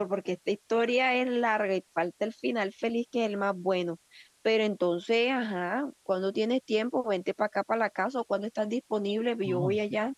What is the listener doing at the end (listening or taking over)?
taking over